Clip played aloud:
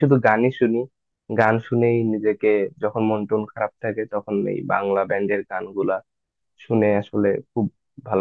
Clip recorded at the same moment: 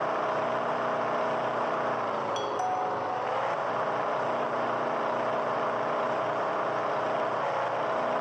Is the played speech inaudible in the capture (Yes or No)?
Yes